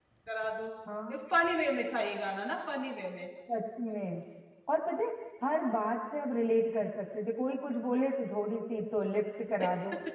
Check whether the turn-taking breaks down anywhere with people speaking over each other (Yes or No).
No